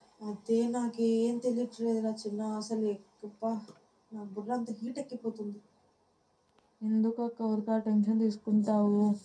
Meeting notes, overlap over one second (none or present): none